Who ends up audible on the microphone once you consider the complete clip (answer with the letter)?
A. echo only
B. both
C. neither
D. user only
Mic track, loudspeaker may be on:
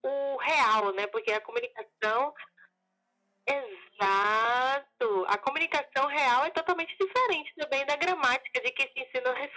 A